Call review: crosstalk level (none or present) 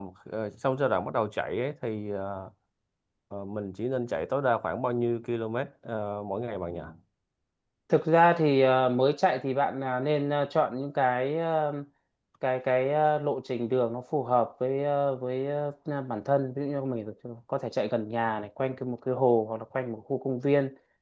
none